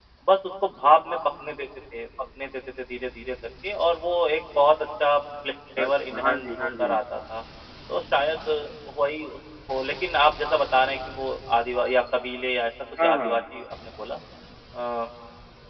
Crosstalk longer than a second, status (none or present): present